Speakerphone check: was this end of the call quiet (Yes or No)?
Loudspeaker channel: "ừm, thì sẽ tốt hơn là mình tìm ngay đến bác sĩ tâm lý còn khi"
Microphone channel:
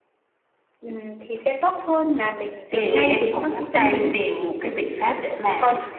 No